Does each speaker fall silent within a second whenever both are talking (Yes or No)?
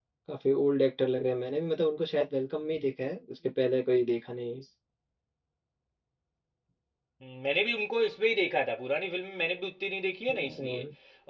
Yes